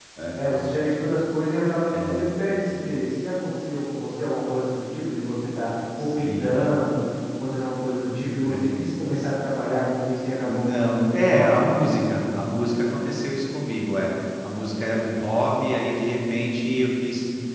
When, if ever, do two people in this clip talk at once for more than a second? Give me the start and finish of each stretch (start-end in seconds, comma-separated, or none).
10.4-11.7